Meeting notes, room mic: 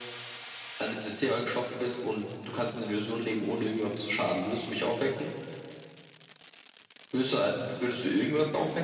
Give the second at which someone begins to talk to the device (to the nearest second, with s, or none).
none